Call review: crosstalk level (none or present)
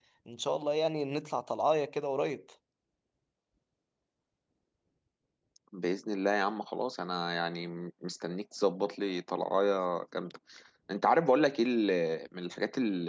none